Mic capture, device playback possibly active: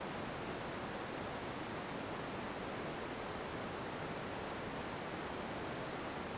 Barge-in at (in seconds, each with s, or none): none